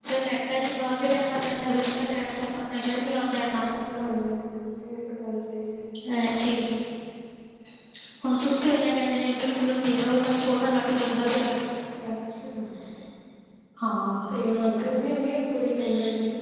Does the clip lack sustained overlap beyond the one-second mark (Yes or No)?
Yes